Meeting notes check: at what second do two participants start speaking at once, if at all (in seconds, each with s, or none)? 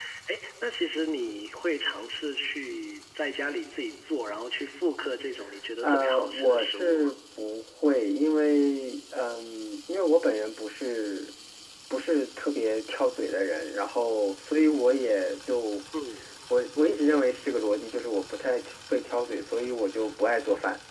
5.8 s